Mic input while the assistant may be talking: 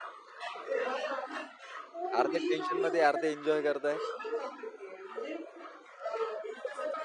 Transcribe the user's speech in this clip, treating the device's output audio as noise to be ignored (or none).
अर्धे टेन्शनमध्ये, अर्धे एन्जॉय करत आहे.